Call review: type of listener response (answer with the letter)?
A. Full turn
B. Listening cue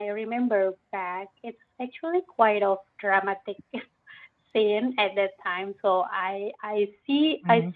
B